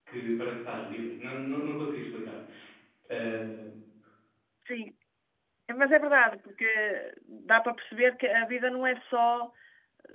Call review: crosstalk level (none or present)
none